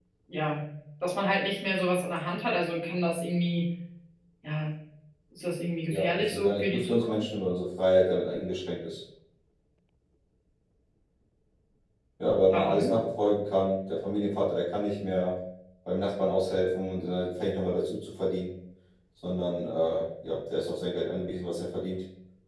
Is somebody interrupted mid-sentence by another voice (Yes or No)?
Yes